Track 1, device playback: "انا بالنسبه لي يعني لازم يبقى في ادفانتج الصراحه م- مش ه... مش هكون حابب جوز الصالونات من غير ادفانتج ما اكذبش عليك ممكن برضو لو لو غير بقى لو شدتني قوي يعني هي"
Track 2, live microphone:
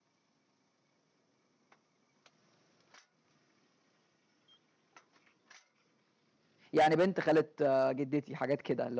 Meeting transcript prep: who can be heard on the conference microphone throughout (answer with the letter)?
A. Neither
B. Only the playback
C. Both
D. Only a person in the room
D